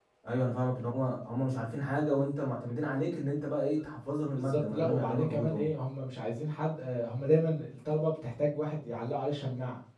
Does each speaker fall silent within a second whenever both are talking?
No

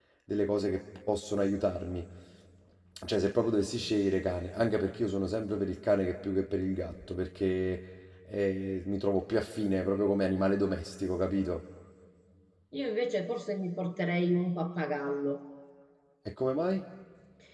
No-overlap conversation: Yes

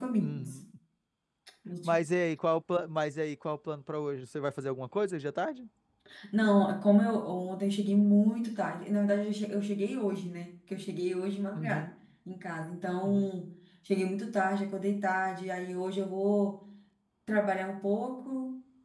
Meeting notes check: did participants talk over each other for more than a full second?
No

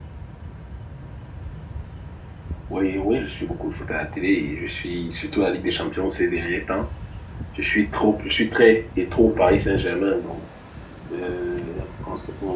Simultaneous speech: No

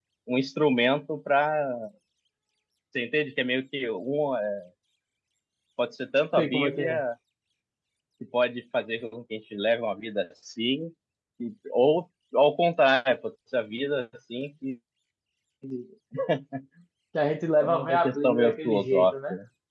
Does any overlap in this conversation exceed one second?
Yes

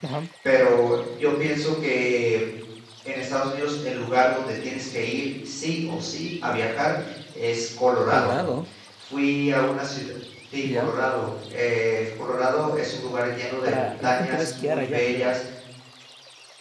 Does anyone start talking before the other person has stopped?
Yes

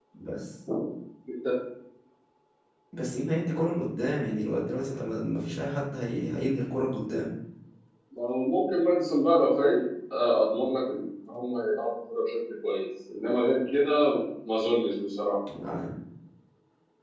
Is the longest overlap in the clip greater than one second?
No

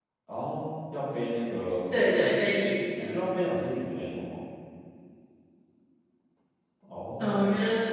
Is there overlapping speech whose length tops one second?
No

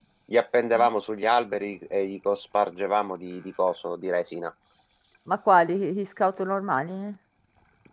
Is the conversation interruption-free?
Yes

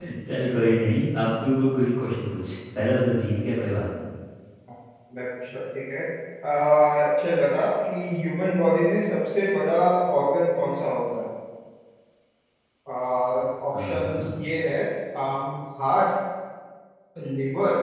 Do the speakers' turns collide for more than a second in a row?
No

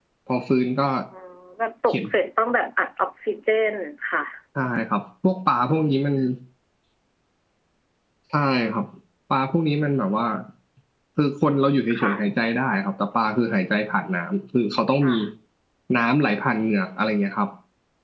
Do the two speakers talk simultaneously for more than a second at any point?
No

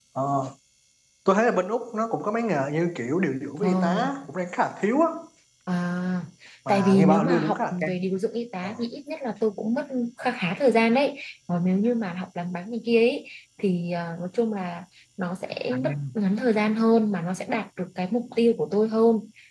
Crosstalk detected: Yes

